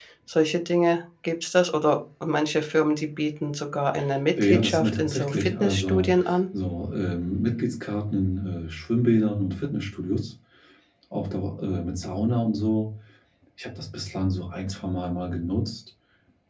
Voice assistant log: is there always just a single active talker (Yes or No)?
No